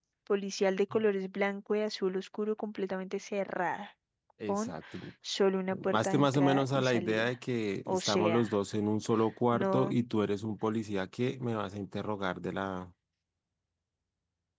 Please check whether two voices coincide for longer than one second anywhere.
Yes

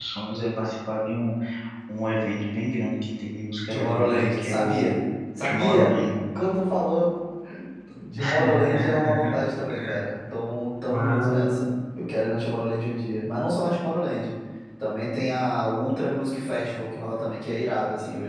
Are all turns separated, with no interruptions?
No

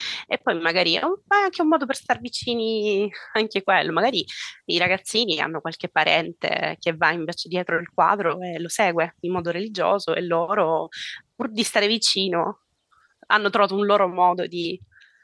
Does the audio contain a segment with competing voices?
No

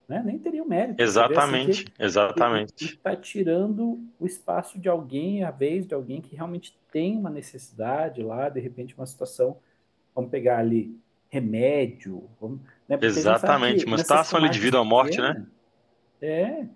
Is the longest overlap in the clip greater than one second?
Yes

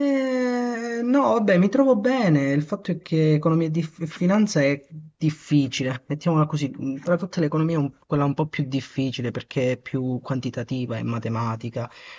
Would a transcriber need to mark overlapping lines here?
No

